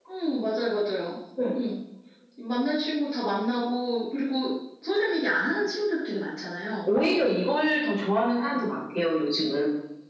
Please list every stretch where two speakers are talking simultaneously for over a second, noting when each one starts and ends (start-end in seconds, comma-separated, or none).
none